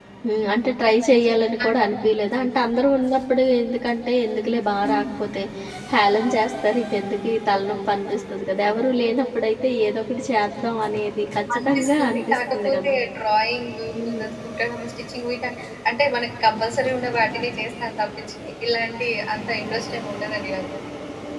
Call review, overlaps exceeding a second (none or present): present